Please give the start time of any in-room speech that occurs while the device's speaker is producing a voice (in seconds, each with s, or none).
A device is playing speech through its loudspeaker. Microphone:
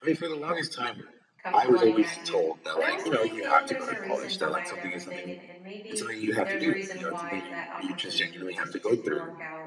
1.4 s